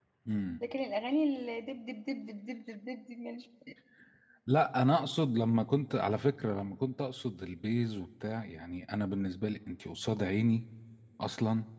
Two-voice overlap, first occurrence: none

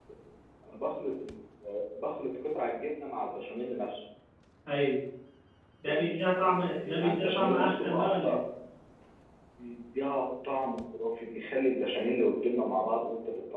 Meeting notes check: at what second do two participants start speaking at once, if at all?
5.9 s

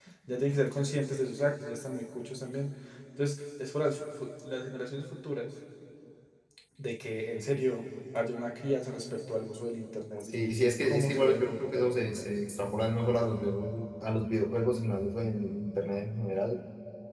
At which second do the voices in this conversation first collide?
10.3 s

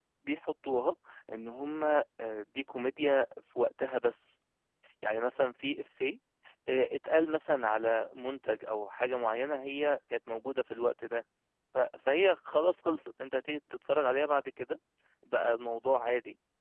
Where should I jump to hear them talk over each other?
none

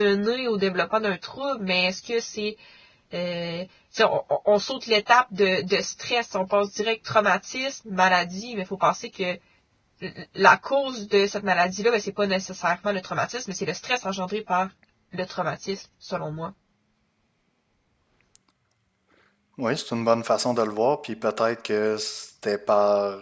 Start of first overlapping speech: none

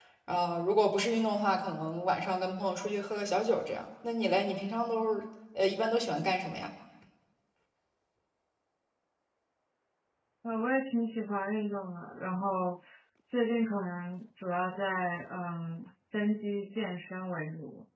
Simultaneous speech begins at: none

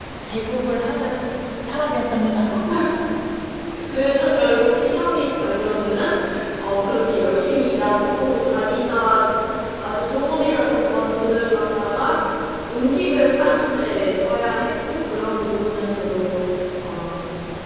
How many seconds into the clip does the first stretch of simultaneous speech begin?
none

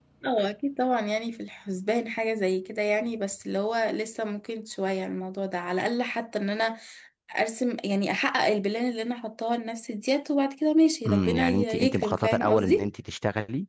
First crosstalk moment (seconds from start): 11.0 s

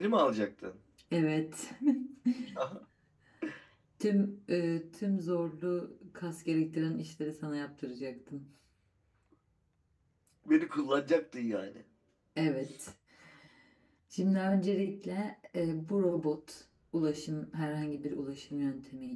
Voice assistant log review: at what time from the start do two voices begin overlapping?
none

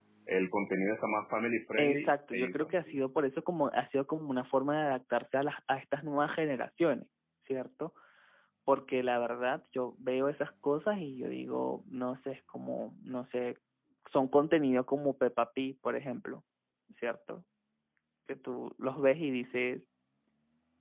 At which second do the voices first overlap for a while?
1.8 s

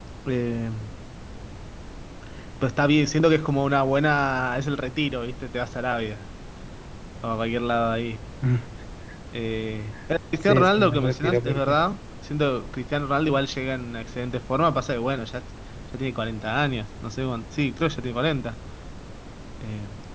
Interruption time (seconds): 10.4 s

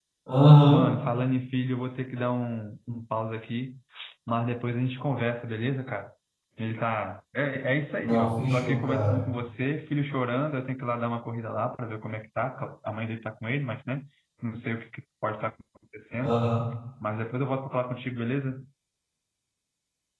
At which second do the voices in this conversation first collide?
8.0 s

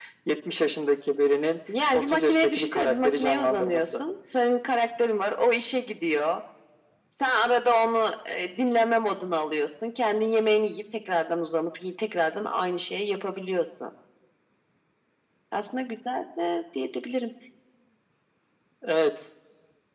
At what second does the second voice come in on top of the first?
1.9 s

